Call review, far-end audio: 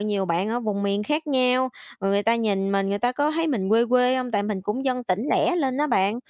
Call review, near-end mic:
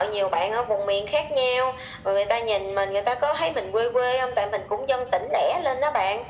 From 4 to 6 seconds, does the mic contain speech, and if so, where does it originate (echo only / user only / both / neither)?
echo only